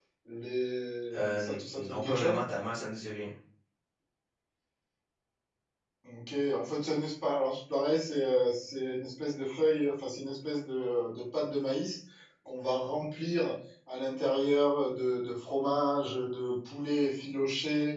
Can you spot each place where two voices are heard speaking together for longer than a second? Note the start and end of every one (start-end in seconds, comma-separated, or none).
1.1-2.4